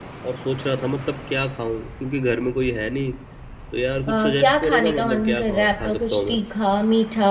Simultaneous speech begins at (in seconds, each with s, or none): 4.1 s